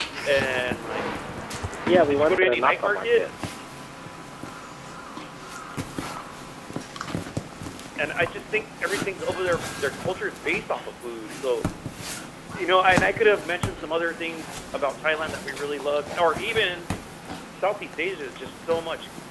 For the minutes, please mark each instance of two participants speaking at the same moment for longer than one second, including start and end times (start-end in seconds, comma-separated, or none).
2.0-3.3